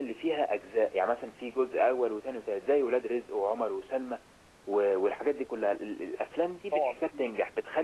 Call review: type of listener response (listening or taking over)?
listening